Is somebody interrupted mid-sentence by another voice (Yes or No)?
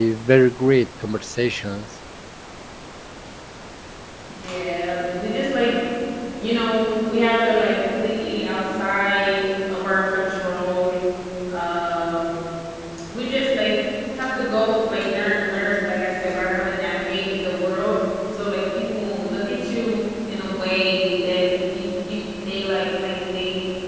No